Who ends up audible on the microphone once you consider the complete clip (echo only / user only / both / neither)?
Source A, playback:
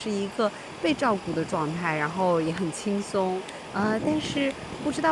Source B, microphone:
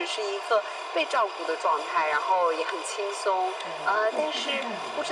both